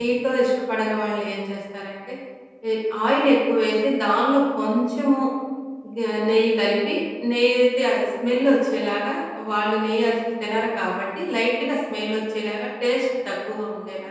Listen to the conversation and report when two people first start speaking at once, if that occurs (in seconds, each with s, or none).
none